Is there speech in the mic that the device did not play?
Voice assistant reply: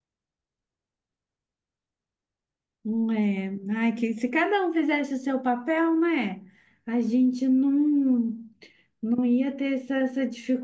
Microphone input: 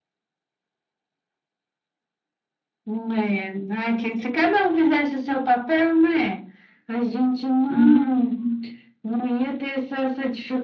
Yes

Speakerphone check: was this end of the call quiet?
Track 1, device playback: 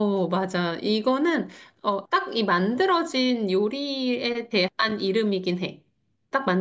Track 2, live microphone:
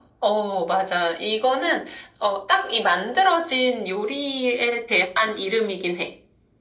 Yes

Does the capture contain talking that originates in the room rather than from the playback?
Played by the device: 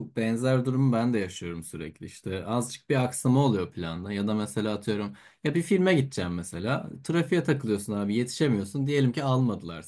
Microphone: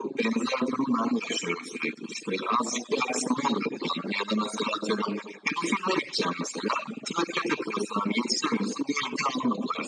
No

